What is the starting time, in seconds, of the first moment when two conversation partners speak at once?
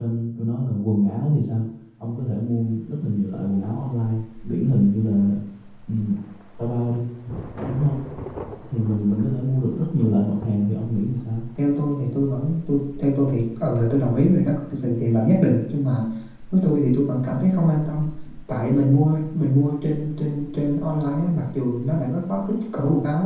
none

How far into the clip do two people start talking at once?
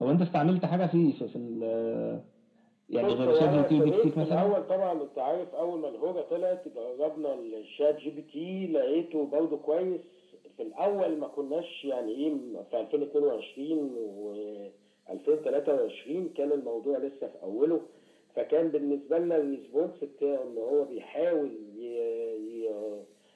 3.0 s

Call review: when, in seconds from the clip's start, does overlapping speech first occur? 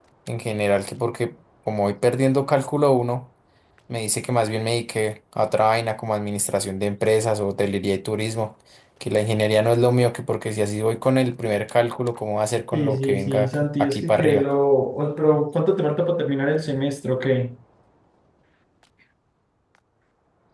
12.7 s

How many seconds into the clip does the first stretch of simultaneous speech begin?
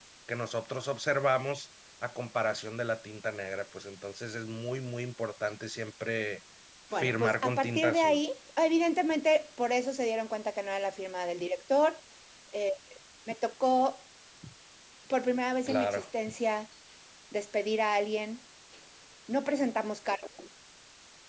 6.9 s

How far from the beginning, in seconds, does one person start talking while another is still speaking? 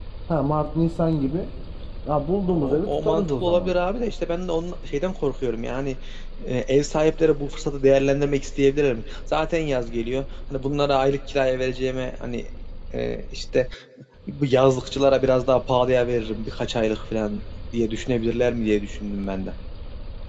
2.5 s

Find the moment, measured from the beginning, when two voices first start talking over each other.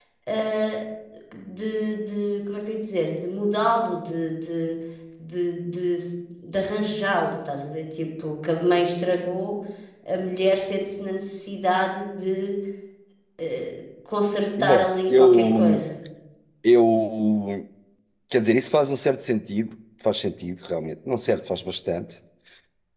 14.6 s

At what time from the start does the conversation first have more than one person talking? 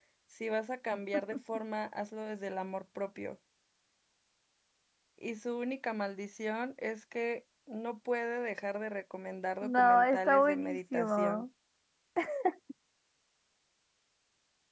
9.6 s

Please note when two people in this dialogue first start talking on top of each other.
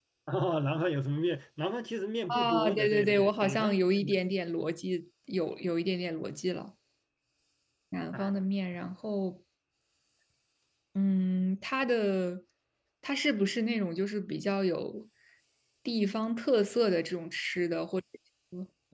2.3 s

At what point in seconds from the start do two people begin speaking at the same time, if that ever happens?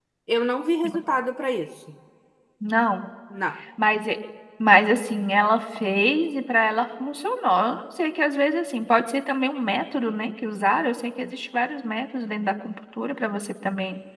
none

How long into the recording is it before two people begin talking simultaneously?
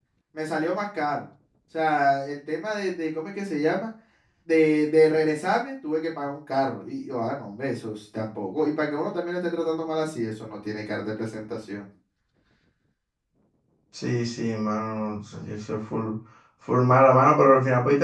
none

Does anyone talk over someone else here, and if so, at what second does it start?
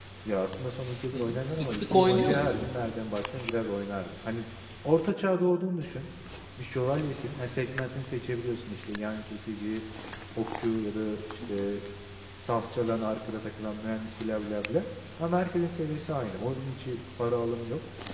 1.1 s

